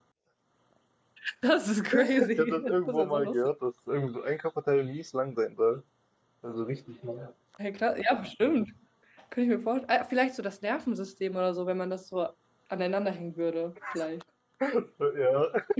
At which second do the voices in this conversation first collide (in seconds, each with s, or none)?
2.0 s